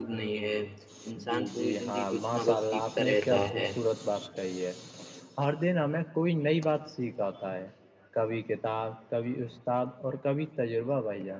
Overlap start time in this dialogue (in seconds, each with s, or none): 1.3 s